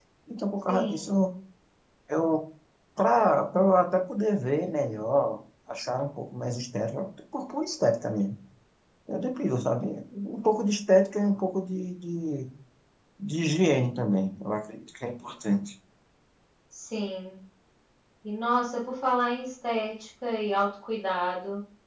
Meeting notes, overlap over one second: none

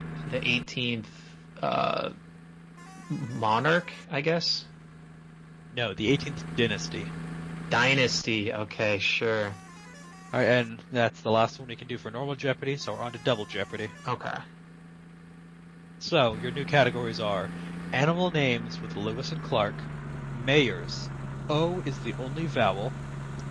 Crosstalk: none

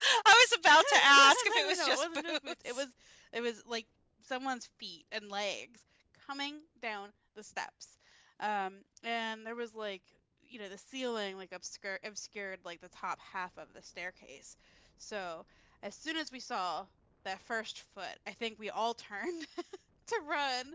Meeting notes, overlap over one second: present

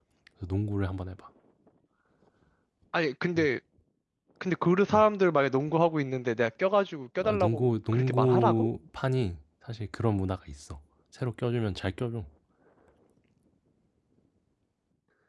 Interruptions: present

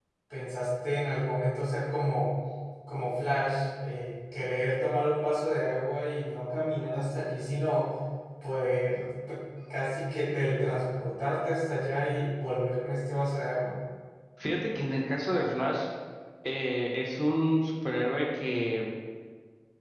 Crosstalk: none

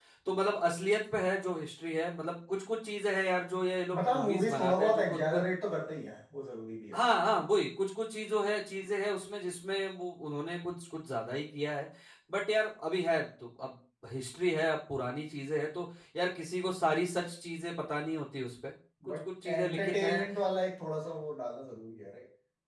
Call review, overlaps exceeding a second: present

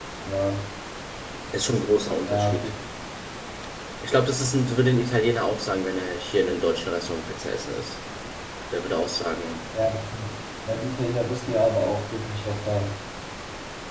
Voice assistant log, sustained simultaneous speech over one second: none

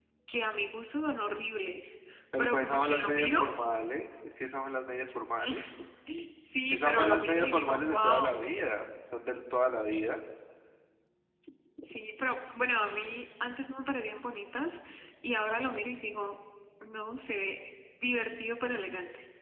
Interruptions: present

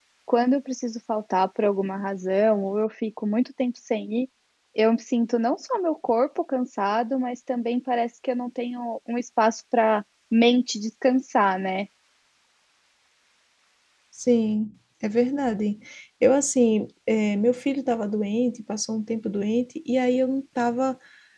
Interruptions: none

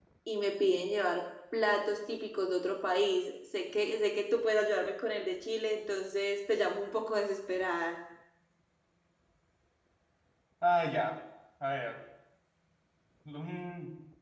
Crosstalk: none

